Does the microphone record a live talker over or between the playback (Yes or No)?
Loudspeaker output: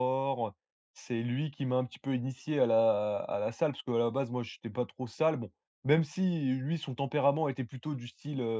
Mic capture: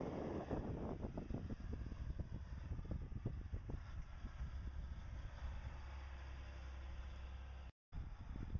No